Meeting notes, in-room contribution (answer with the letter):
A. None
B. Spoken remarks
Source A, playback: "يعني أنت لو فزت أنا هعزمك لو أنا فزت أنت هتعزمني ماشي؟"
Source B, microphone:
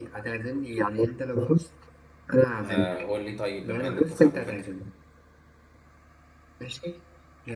B